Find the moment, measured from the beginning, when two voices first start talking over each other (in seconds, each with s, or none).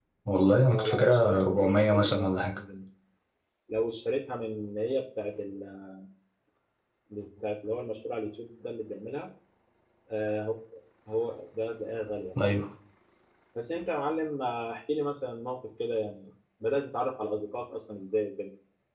0.7 s